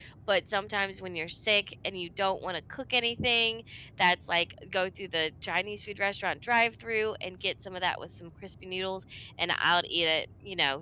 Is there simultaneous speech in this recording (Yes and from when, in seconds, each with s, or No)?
No